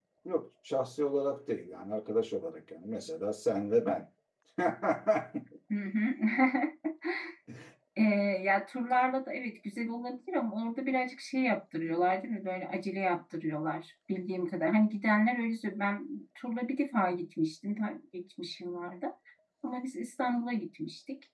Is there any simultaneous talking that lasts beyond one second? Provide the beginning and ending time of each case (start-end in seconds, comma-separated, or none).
none